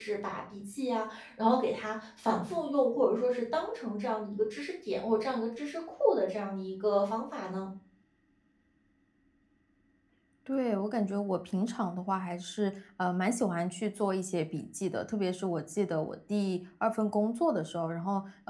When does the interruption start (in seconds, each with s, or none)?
none